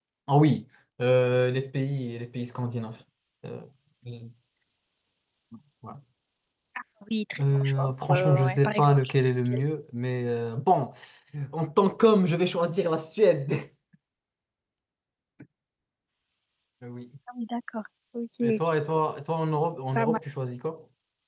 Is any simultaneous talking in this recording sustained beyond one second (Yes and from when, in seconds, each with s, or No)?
Yes, from 7.4 s